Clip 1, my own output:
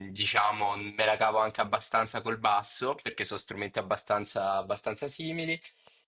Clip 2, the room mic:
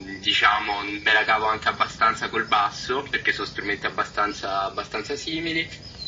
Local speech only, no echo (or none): none